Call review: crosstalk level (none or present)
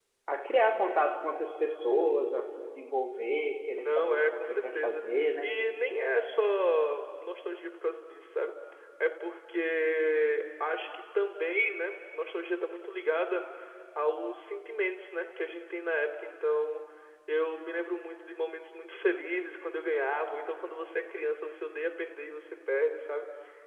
present